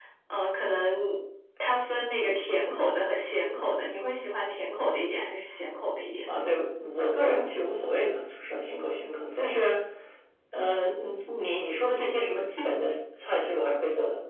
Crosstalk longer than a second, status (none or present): none